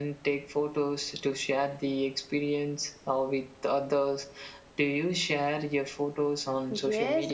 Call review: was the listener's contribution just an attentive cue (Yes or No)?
No